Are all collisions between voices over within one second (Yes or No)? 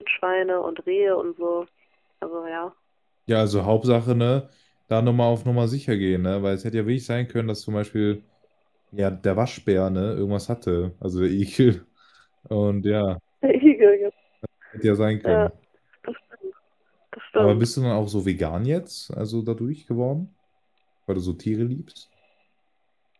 Yes